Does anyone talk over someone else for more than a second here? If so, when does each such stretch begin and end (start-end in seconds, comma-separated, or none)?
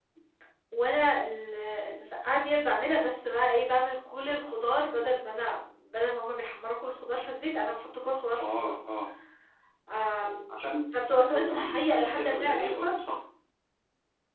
11.2-12.9